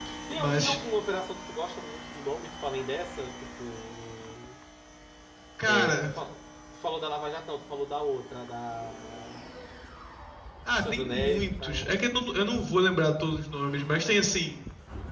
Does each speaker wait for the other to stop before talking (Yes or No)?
No